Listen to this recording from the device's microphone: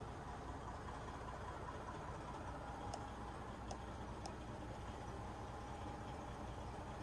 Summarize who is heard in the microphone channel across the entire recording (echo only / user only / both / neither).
neither